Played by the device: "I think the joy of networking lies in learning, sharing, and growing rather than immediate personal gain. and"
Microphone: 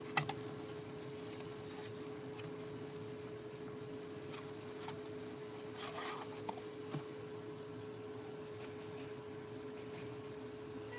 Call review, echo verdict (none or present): none